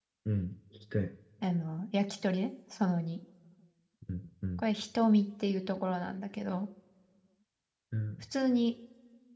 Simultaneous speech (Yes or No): No